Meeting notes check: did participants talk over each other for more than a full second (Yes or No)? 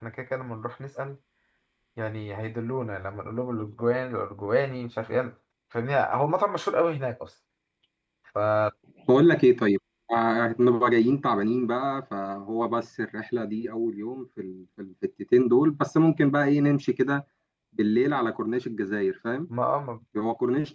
No